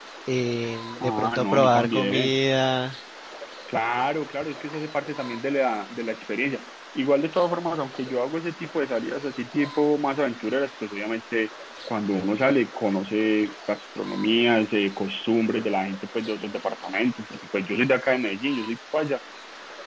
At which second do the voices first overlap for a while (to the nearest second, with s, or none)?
1 s